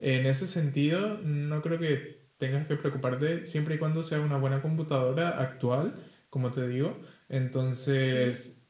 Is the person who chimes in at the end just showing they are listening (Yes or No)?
Yes